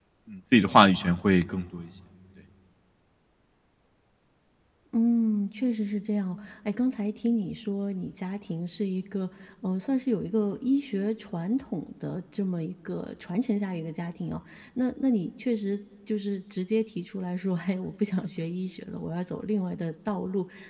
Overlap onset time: none

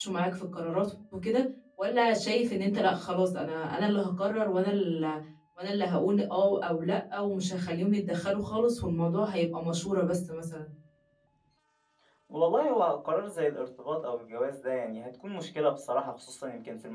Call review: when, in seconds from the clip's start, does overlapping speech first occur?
none

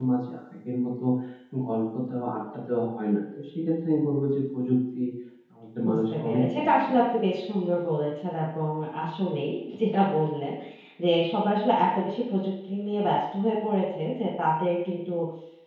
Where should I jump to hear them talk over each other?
6 s

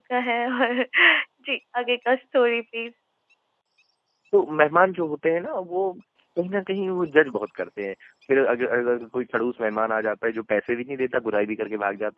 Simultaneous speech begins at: none

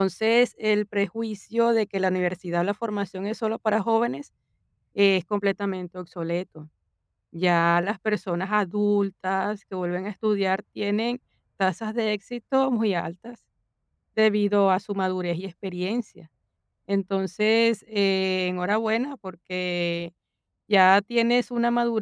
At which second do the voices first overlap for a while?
none

